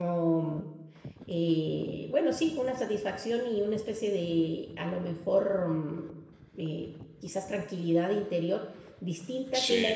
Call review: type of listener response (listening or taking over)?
listening